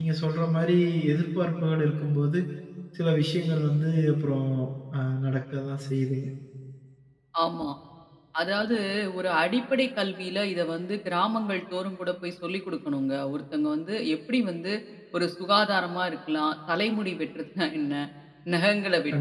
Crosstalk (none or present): none